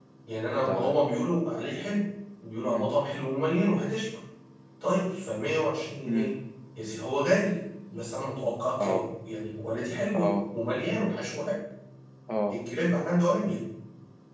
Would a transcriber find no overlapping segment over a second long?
Yes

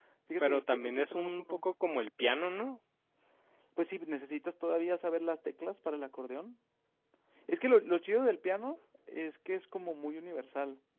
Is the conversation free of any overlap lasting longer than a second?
No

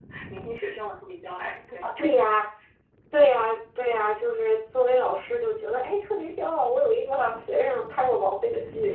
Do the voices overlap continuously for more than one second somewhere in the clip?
No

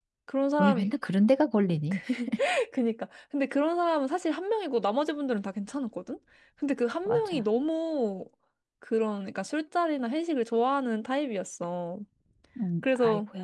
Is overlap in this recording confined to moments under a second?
Yes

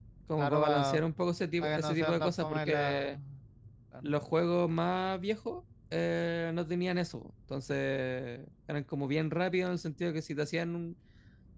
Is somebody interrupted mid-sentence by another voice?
Yes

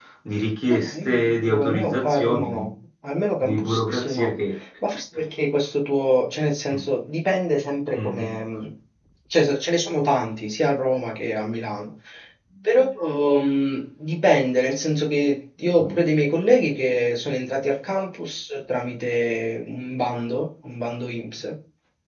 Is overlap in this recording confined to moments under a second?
No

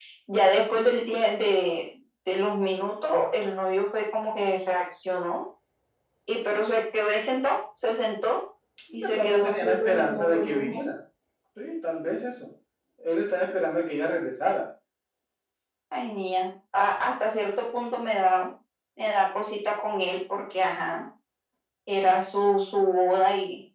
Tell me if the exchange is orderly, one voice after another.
No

